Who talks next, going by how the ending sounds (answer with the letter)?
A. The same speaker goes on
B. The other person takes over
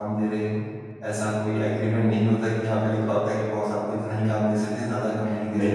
B